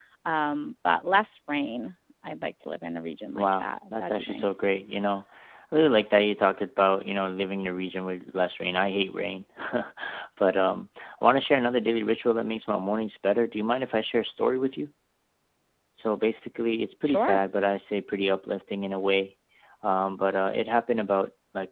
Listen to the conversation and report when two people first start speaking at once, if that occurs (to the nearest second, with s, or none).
3 s